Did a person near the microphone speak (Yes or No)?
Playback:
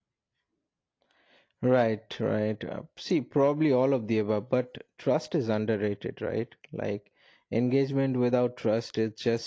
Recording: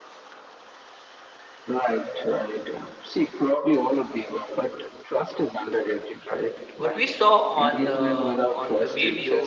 Yes